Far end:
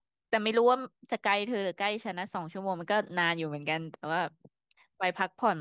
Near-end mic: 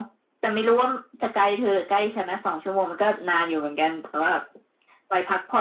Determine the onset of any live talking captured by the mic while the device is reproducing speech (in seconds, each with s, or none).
none